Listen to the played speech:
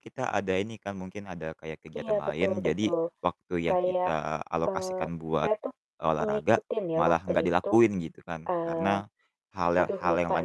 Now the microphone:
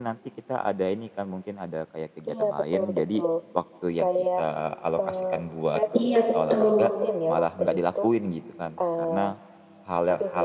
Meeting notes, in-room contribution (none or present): present